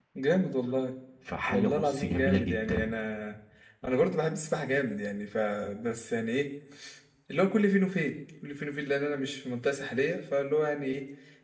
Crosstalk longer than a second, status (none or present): present